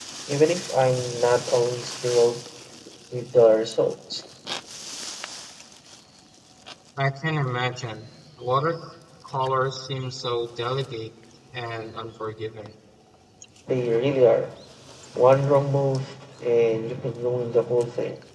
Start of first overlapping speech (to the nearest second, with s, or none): none